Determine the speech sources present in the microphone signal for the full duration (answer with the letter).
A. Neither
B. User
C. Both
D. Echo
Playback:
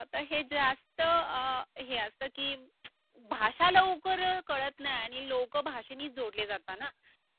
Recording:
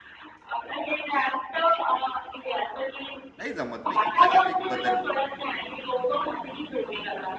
C